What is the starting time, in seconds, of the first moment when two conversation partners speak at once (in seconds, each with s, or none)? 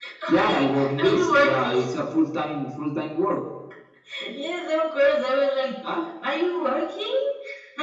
0.5 s